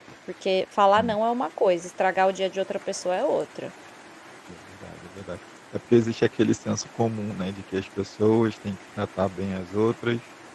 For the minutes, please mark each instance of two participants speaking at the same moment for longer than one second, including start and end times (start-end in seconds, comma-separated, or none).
none